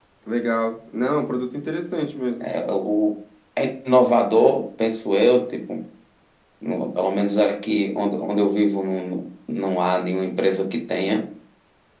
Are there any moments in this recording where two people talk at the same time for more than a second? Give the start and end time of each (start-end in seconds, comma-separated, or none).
none